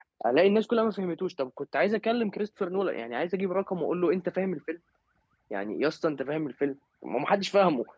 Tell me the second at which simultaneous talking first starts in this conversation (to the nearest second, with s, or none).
none